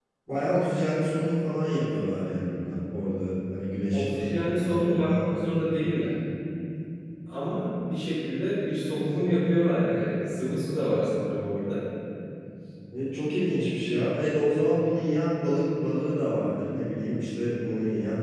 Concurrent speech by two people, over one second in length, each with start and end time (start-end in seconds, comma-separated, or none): 3.9-5.2